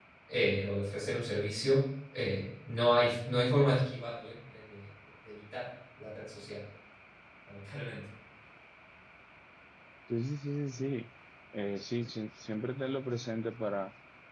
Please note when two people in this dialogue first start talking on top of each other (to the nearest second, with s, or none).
none